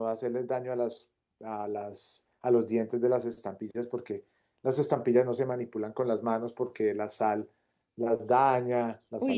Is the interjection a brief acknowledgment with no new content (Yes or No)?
No